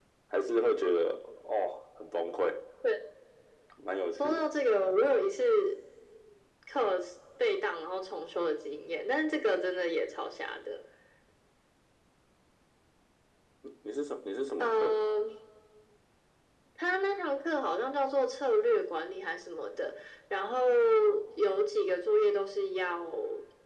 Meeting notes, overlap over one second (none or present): none